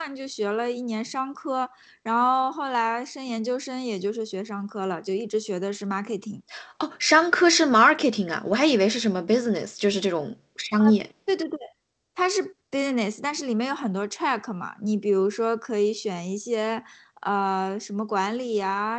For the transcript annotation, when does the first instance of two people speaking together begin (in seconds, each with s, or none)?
none